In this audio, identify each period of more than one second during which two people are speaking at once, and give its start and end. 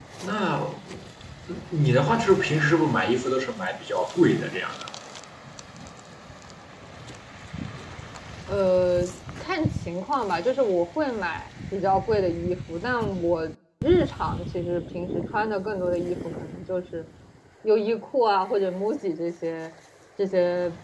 none

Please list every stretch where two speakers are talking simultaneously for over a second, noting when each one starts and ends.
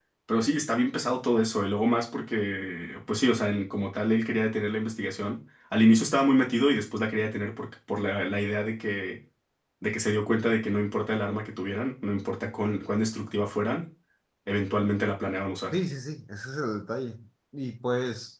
none

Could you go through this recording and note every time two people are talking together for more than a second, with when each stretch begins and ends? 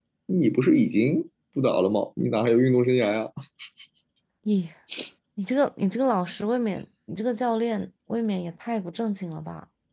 none

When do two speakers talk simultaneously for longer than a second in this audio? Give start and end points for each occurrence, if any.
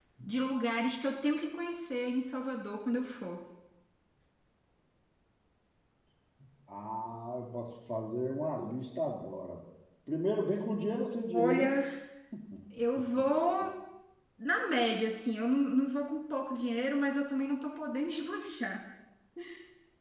none

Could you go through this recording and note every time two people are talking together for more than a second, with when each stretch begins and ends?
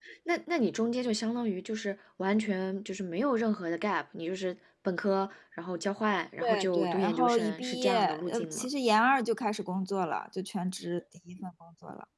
6.4-8.7

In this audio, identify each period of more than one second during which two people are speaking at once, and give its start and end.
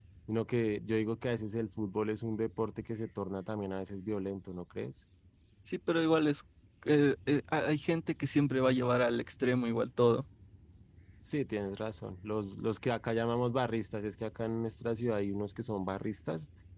none

